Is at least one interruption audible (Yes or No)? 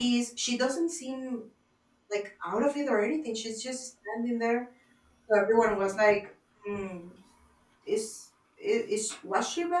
No